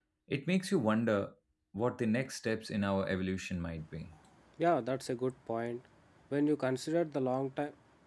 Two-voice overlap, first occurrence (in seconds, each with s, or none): none